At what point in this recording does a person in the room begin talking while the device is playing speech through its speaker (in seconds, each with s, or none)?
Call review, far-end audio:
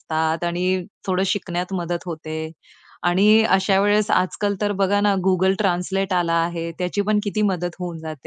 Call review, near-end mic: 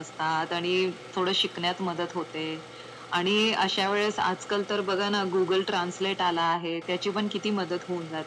none